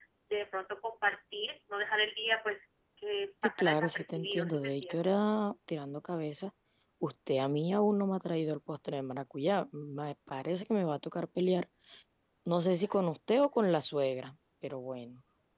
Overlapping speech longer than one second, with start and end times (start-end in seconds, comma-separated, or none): 3.6-5.1